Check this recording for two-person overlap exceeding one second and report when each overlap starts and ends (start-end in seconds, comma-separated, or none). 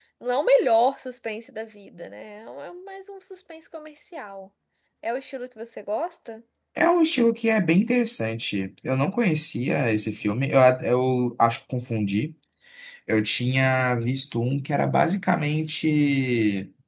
none